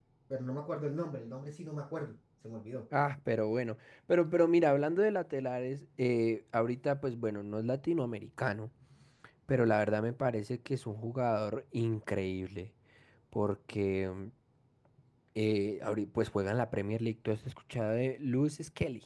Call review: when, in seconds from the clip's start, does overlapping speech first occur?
none

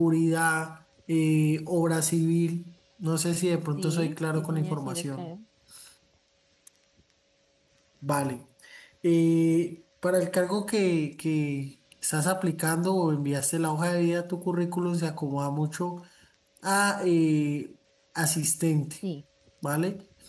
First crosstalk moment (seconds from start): 3.8 s

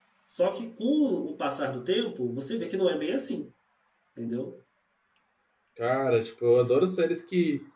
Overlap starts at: none

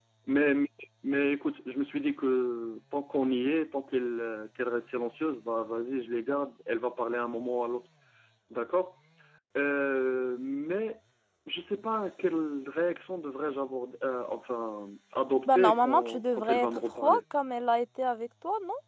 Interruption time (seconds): 15.5 s

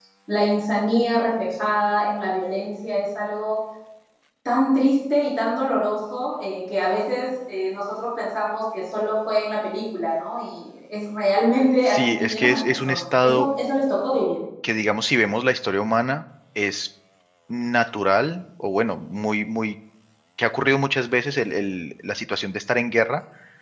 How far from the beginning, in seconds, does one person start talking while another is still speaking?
11.8 s

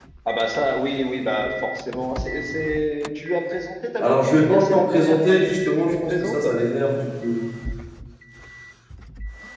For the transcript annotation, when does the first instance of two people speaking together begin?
4.0 s

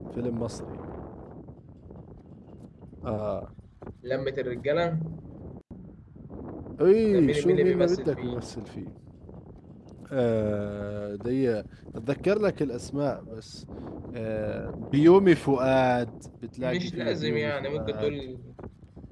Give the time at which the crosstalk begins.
7.1 s

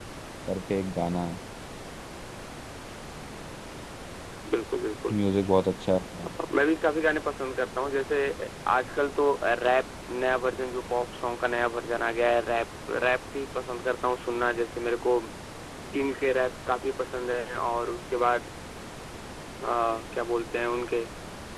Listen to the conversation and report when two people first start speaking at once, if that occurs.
none

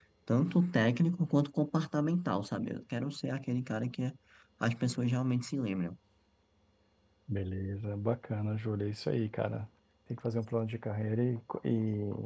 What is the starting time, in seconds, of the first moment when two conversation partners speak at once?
none

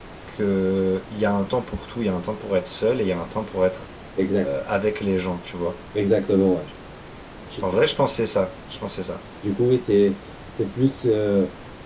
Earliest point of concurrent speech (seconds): none

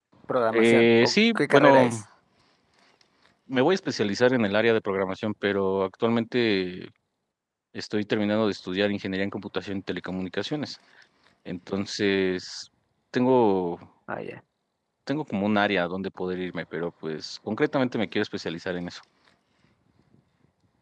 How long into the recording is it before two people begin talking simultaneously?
0.5 s

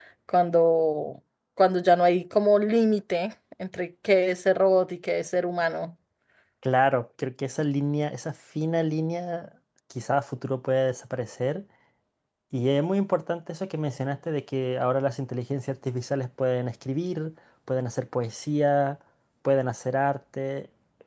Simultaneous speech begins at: none

